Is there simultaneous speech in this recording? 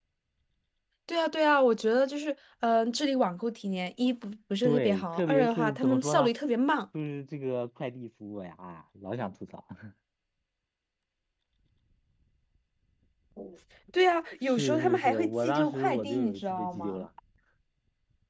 Yes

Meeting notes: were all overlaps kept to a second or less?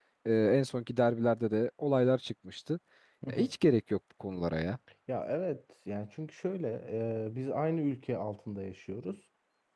Yes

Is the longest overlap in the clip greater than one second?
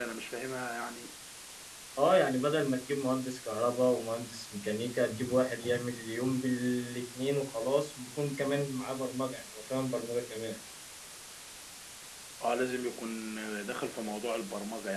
No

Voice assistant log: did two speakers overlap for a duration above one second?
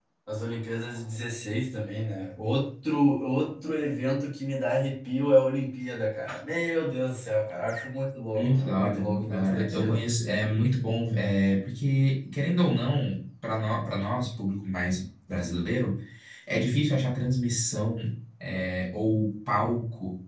Yes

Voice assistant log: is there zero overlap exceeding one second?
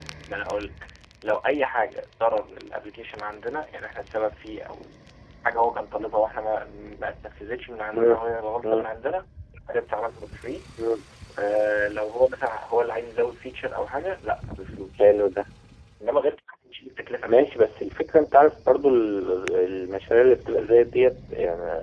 Yes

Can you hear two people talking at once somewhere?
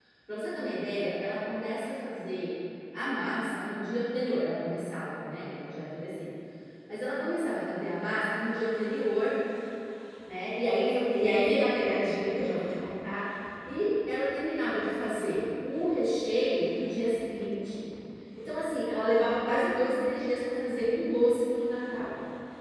No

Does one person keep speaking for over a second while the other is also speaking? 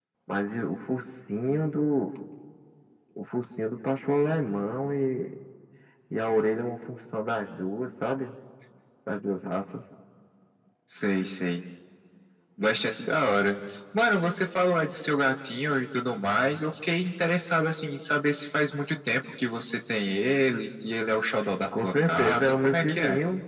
Yes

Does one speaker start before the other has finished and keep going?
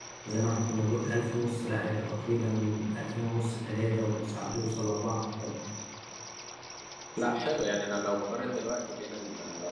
No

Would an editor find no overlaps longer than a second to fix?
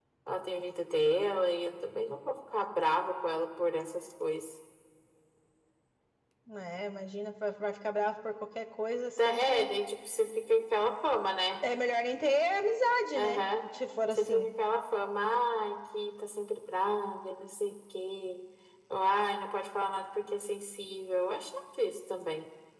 Yes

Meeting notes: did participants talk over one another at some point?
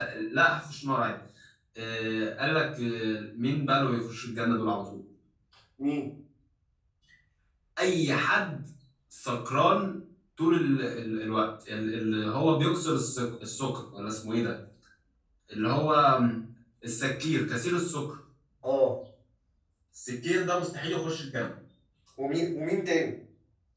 No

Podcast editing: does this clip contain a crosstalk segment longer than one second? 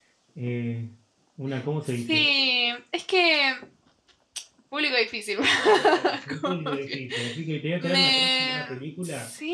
Yes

